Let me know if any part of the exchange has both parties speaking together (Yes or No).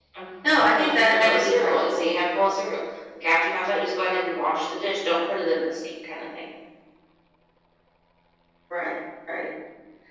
Yes